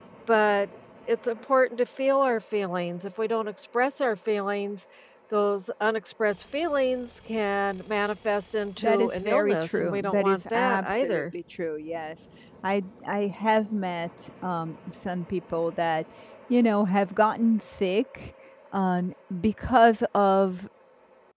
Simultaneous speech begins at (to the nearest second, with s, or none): 9 s